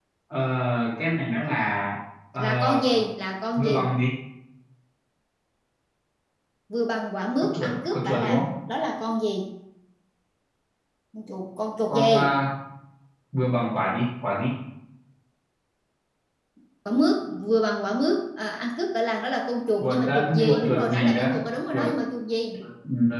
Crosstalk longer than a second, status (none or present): present